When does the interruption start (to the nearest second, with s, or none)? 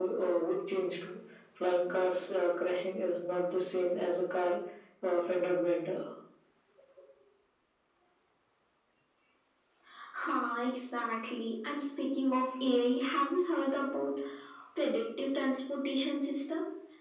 none